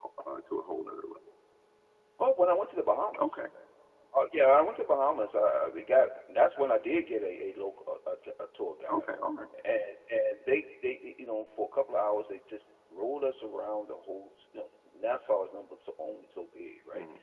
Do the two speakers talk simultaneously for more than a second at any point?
No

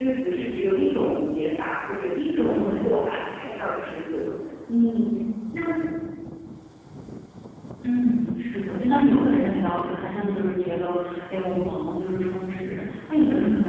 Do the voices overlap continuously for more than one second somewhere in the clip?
No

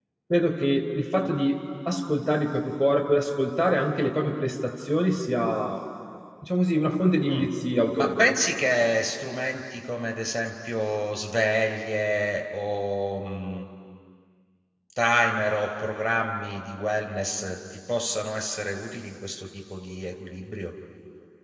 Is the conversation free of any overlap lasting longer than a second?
Yes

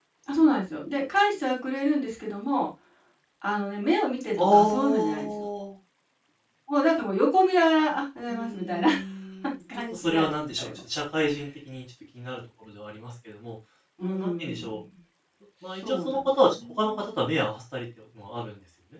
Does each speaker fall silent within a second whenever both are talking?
No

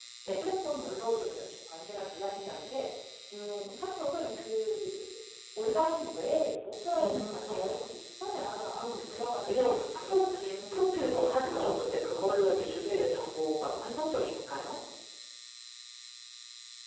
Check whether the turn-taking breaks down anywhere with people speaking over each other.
Yes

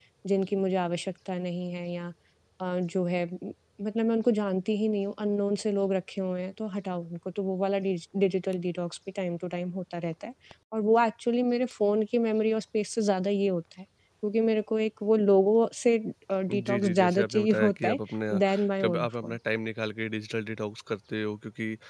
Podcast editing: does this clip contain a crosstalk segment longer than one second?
Yes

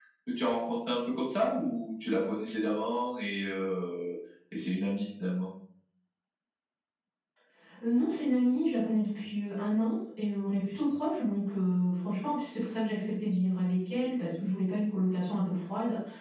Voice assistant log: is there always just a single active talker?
Yes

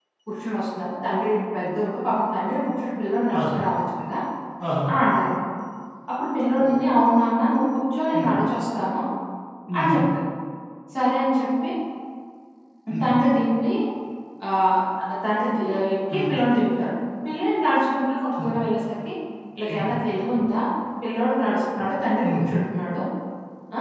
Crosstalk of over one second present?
No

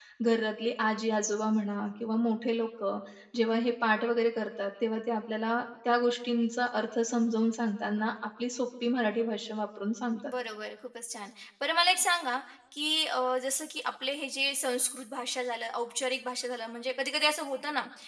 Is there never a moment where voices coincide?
Yes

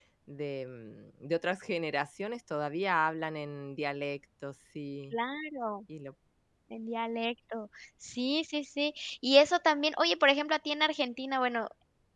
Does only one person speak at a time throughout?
Yes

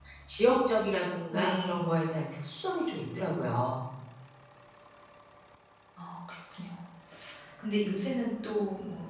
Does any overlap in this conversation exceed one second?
No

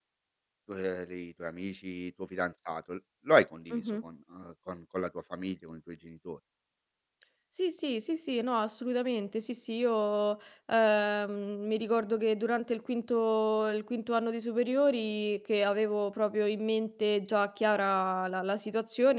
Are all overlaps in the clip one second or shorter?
Yes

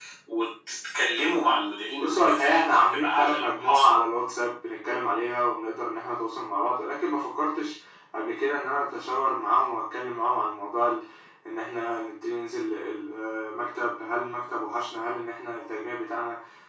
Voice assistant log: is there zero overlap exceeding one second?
No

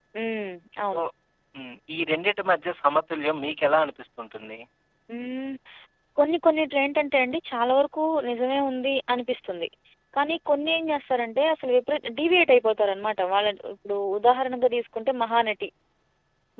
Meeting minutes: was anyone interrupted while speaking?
No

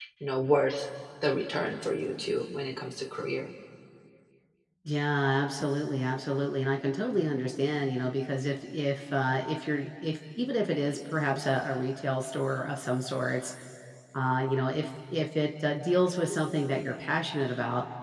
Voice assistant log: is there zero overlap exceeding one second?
Yes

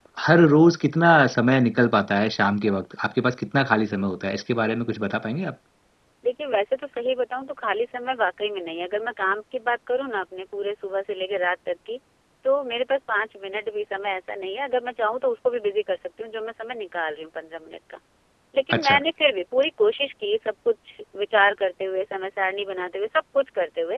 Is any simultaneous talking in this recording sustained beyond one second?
No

